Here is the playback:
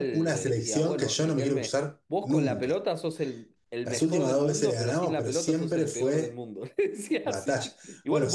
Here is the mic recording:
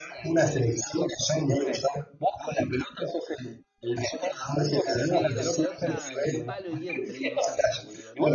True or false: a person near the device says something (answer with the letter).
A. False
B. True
B